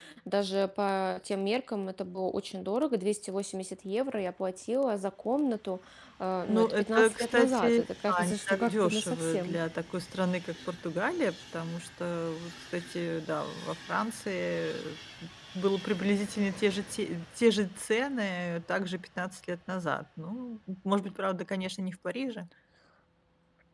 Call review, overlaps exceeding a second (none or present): present